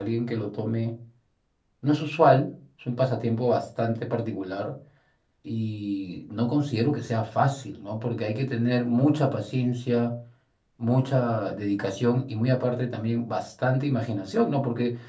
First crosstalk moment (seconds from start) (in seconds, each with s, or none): none